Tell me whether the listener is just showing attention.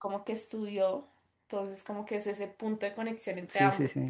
No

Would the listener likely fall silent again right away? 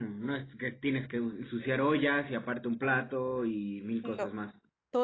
No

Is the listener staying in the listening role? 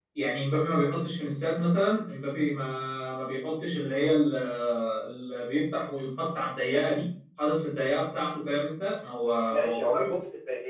No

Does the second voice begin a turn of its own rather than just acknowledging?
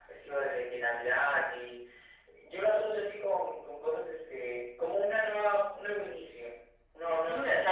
Yes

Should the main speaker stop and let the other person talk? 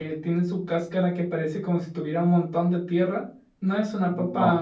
No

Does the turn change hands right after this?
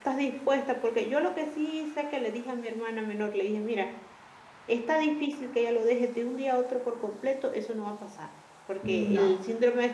No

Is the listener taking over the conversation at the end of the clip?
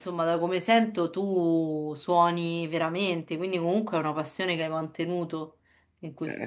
Yes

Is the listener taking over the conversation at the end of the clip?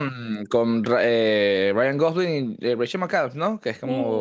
Yes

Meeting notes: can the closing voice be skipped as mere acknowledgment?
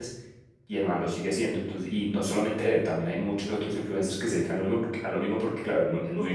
No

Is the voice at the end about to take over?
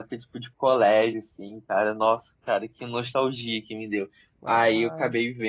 No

